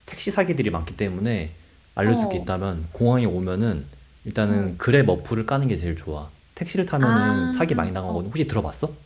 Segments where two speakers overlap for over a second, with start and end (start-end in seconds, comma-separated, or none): 7.0-8.2